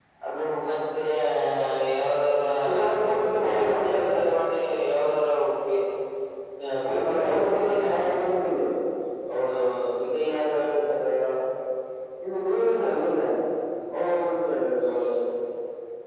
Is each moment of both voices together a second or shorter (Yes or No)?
No